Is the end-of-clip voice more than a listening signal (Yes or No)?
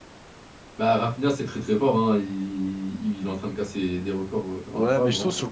Yes